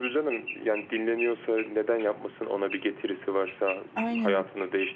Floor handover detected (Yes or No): No